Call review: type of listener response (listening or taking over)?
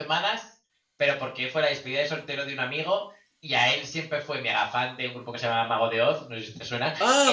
taking over